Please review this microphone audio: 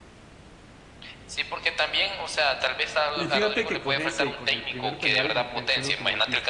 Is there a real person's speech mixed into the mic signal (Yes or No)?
Yes